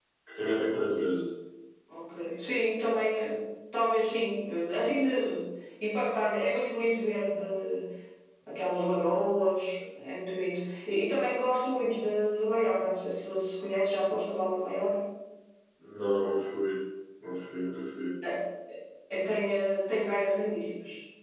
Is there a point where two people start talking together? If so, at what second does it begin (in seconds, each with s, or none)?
none